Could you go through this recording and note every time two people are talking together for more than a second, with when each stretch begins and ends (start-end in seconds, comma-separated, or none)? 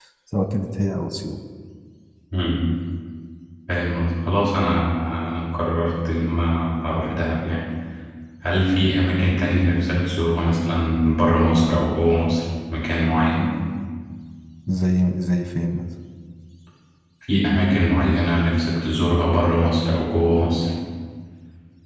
none